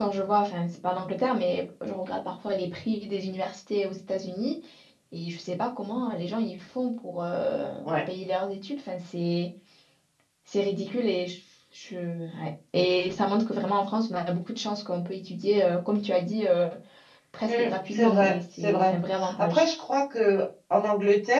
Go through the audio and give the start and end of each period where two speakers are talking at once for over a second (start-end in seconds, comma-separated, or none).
17.4-19.0